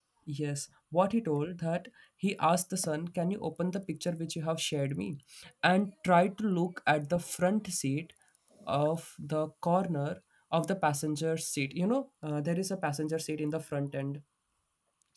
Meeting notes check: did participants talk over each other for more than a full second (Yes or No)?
No